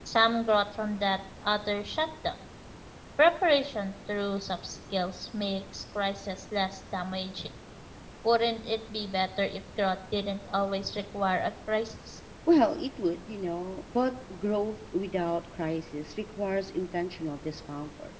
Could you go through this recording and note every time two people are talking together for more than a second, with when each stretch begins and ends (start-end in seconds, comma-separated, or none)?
none